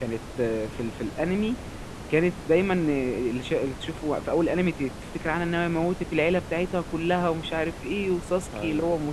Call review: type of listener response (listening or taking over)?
listening